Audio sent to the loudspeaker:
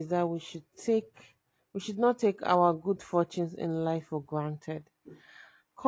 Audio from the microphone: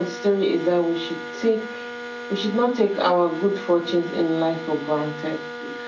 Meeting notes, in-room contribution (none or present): none